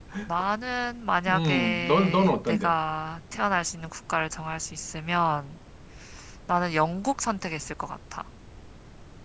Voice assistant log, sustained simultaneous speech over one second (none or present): present